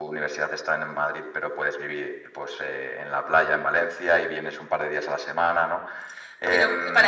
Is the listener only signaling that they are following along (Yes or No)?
No